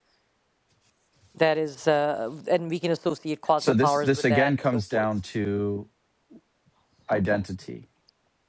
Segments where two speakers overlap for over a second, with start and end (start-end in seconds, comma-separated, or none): 3.6-5.0